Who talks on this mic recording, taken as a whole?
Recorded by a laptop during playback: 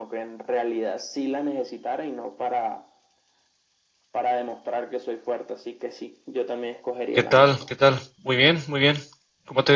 both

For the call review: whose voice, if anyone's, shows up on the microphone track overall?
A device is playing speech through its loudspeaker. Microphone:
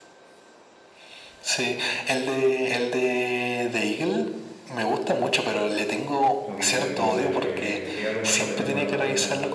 both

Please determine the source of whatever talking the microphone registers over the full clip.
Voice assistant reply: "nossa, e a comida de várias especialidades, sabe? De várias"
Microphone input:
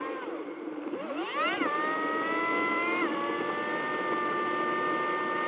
neither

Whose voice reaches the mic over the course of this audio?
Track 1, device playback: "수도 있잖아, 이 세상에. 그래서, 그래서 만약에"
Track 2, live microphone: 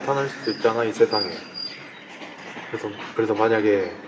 echo only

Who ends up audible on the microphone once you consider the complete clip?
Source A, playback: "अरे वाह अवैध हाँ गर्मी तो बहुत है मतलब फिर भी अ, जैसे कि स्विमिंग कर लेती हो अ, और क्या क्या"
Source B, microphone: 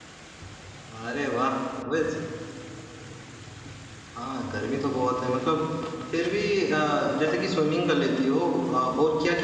echo only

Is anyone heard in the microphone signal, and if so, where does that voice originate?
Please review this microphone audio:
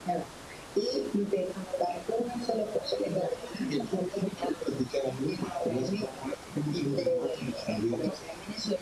echo only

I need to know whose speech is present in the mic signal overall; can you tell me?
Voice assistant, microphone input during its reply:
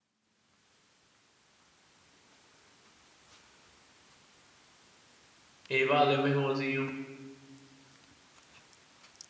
user only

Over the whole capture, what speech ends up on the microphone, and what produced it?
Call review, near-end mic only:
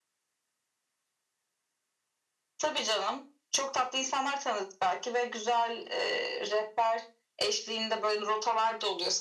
echo only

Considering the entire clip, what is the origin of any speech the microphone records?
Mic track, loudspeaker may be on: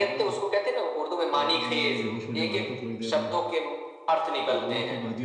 both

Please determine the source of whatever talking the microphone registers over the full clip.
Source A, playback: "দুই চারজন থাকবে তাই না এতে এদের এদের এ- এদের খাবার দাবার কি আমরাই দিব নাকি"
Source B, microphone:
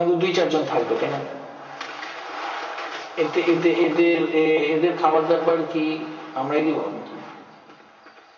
echo only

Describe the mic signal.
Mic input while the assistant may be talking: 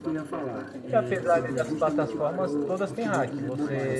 both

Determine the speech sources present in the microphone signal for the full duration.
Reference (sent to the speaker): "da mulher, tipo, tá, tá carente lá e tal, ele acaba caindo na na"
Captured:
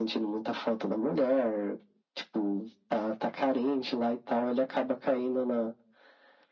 echo only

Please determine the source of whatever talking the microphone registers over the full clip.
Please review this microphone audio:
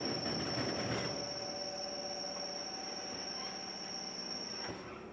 neither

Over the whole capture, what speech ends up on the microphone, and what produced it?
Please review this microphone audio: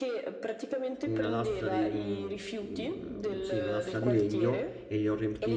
both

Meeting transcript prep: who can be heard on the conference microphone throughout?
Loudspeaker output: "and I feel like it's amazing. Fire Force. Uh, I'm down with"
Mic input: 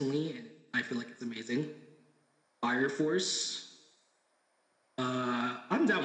echo only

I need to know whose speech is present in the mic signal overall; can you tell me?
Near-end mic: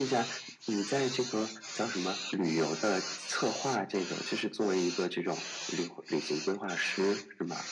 echo only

